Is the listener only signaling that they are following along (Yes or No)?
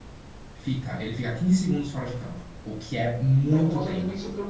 No